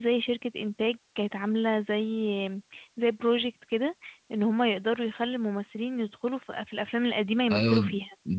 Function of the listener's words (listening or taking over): taking over